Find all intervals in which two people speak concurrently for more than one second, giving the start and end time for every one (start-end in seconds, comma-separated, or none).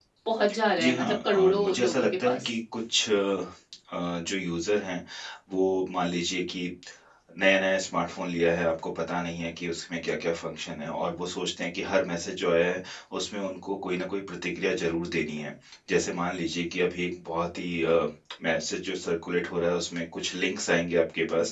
0.8-2.5